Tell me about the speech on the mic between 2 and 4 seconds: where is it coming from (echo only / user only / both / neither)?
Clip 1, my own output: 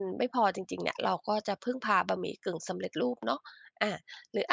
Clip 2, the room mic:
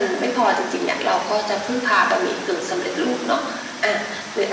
echo only